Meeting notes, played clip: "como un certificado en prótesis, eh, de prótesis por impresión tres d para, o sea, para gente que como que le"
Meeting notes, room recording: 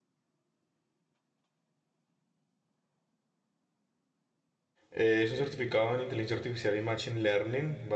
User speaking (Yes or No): Yes